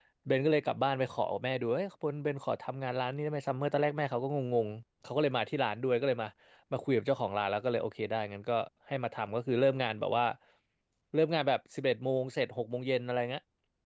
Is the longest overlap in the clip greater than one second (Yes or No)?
No